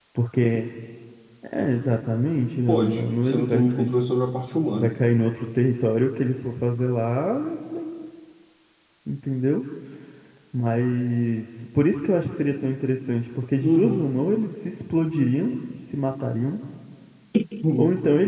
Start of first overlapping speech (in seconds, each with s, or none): 2.7 s